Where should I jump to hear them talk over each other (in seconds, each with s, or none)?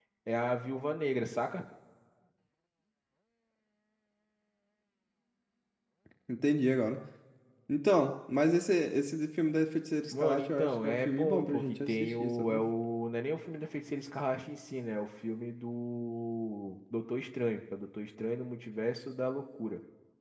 10.1 s